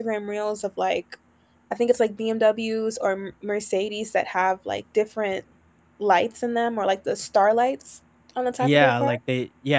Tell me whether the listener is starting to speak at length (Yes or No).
Yes